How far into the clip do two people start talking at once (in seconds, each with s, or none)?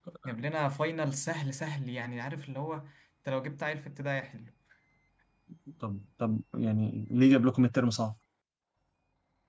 none